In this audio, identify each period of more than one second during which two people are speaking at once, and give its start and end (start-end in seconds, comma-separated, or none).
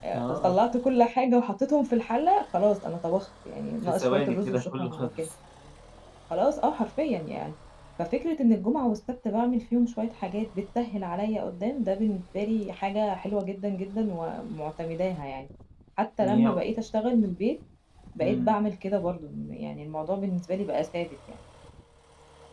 3.9-5.3